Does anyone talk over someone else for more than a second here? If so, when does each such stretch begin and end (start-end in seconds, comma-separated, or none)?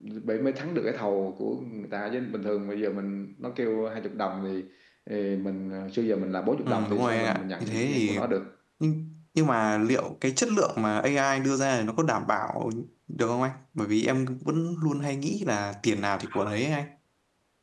6.7-8.2